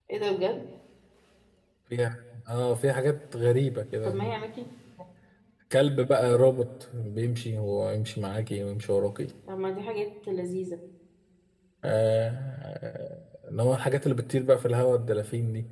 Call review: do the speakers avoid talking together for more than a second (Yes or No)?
Yes